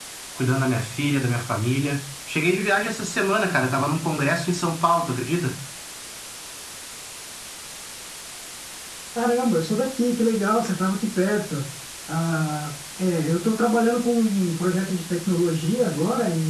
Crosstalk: none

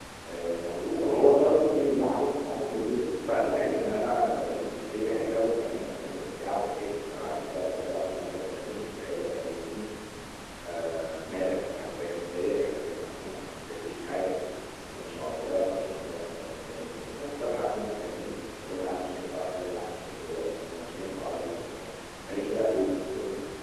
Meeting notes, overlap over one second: none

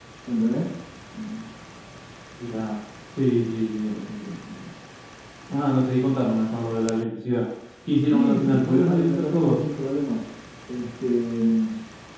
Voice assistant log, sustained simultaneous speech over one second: present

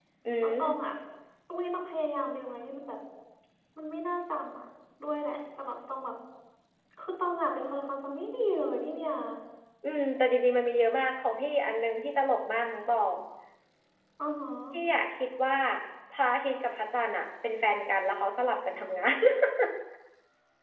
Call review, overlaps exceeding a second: none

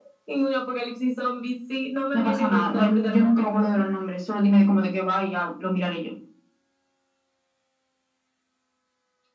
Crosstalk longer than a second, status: present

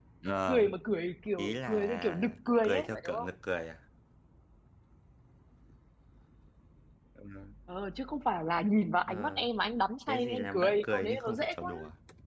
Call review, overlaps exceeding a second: present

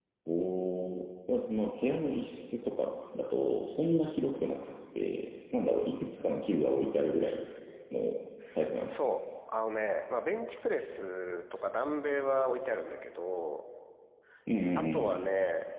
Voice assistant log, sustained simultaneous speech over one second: none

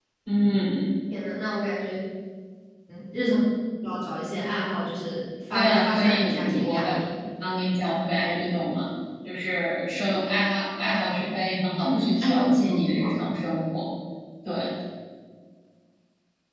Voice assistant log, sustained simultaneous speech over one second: present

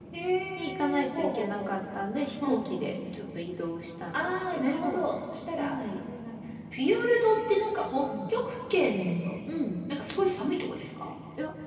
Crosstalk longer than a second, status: present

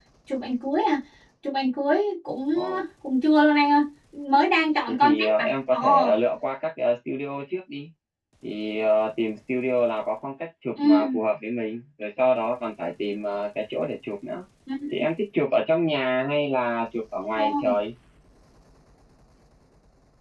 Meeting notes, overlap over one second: present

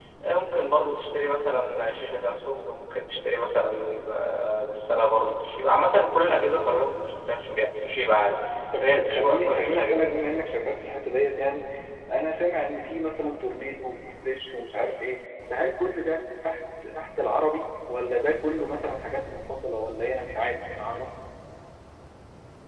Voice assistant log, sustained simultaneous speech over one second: present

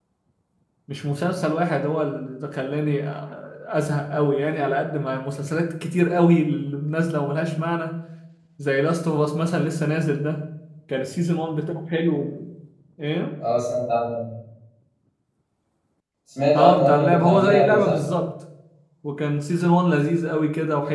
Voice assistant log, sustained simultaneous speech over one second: present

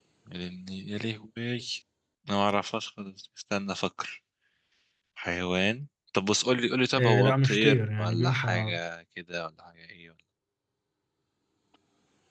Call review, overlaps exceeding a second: present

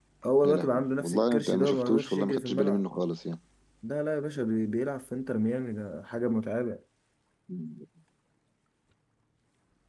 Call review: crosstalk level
present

